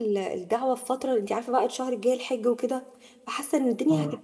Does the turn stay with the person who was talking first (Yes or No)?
Yes